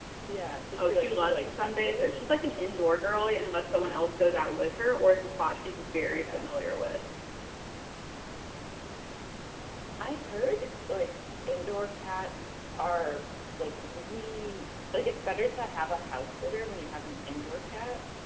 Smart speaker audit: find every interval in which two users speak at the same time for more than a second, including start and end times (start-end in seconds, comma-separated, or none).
0.8-2.1